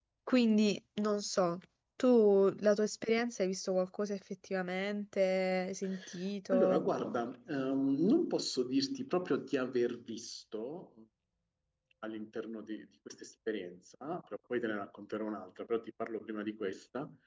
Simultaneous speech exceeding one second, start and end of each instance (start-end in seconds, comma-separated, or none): none